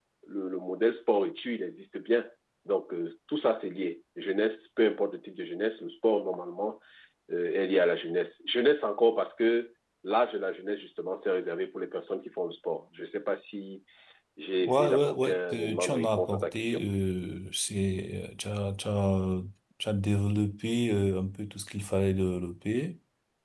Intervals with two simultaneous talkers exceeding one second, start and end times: 14.6-16.8

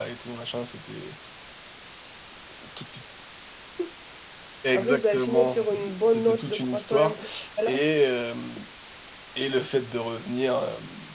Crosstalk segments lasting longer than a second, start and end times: 4.7-7.2

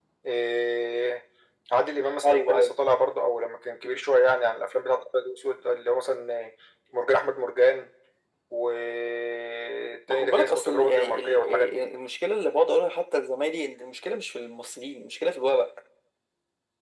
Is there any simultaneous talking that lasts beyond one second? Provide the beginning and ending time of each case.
10.1-11.8

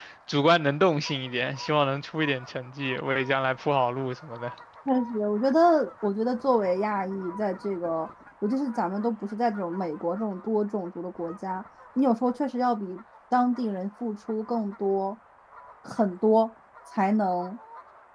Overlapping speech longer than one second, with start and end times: none

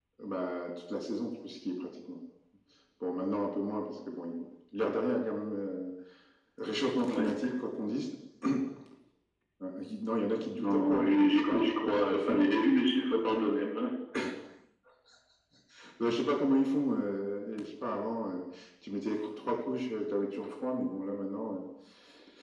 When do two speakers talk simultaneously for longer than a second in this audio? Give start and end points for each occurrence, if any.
10.6-12.4

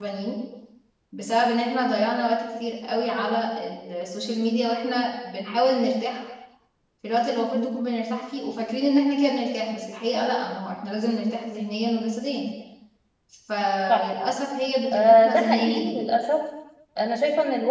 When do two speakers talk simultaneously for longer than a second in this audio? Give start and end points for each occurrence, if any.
14.9-16.1

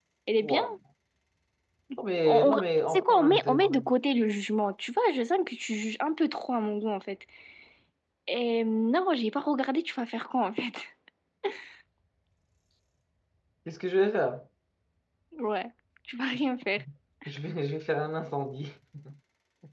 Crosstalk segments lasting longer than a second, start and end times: 2.2-3.7

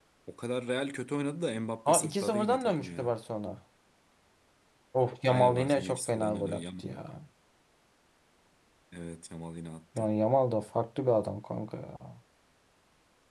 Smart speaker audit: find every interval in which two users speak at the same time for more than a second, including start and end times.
1.9-3.1, 5.3-7.0

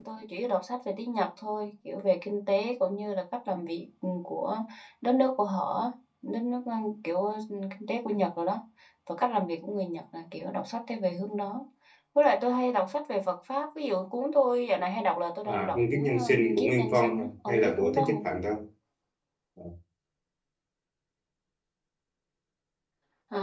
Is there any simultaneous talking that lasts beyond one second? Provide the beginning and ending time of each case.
15.5-18.2

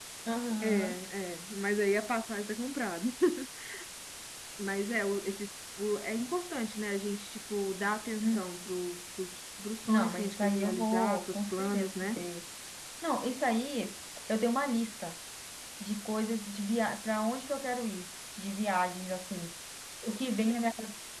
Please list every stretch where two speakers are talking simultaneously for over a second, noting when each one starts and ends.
9.9-12.1

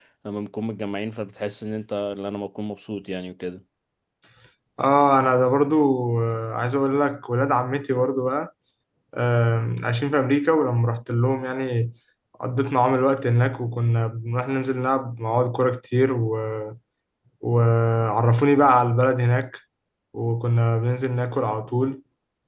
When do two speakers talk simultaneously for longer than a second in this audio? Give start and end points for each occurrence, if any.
none

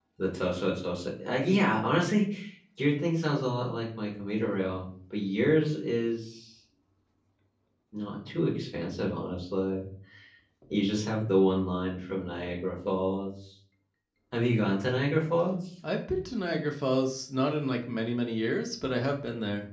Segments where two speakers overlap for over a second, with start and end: none

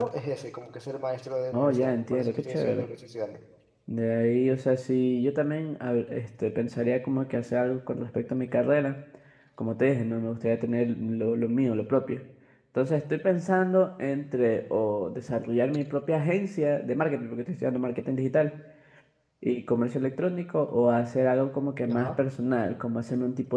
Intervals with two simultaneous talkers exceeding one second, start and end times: 1.5-2.9

